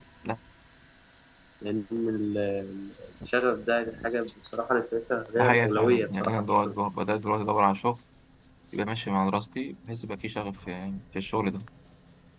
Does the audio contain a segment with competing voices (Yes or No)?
Yes